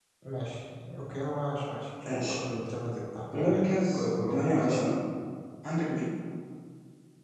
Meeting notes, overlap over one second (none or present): present